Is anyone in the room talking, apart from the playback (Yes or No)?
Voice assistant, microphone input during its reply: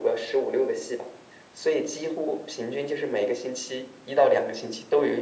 No